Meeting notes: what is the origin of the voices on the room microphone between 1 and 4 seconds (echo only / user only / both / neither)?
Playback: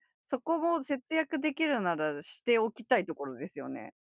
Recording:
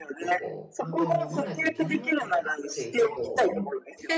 both